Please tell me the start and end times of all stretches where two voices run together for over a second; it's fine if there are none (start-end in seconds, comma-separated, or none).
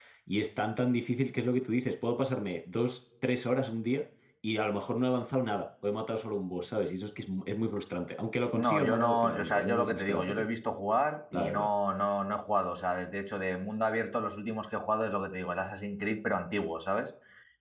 8.5-10.5